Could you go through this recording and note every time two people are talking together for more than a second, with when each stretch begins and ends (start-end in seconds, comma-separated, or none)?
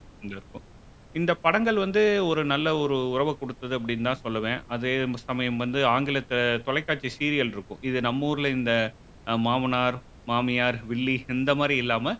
none